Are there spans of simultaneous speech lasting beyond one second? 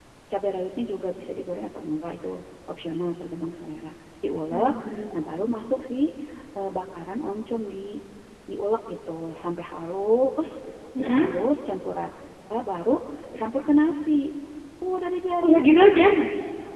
No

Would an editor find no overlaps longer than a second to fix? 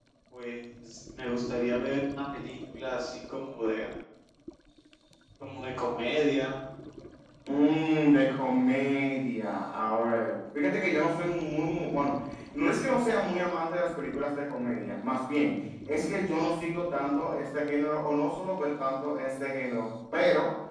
Yes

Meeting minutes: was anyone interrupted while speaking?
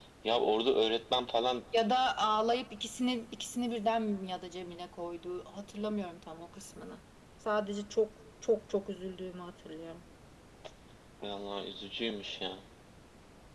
No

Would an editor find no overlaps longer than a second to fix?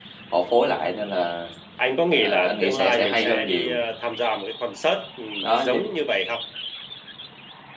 No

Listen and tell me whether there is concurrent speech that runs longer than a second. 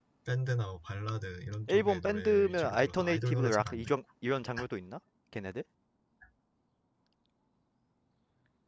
Yes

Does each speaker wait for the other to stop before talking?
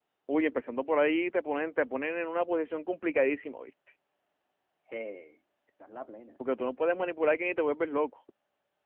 Yes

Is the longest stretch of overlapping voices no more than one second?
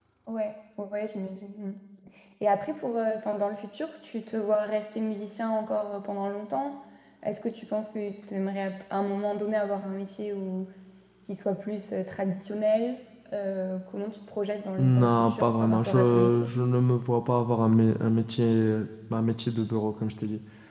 No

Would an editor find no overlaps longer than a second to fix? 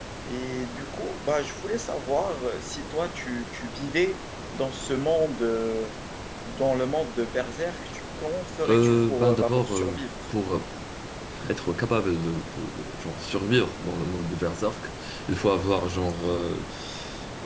No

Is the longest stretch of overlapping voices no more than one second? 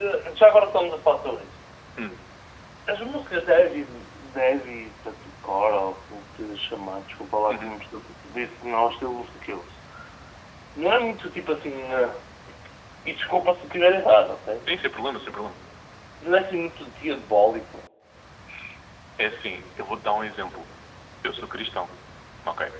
Yes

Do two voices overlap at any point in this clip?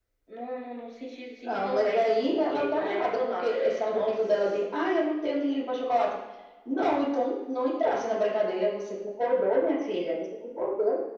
Yes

